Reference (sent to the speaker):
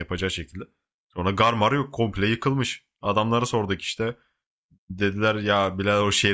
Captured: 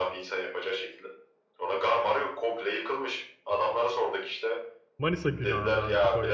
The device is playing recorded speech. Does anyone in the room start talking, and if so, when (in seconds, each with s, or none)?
5.0 s